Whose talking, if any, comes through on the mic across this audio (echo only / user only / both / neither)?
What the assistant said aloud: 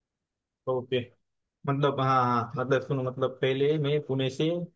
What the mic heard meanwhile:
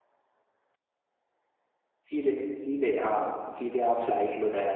user only